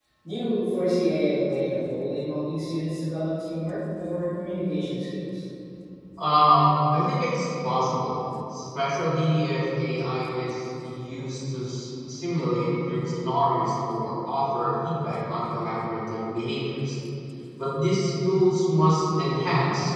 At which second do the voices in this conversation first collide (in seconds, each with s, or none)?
none